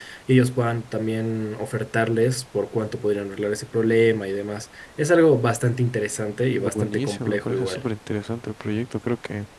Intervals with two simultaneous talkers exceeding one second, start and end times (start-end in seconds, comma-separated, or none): 6.6-7.8